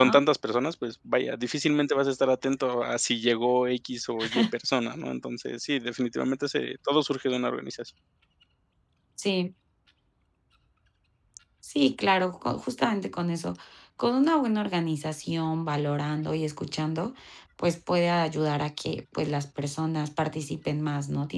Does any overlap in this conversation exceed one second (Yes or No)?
No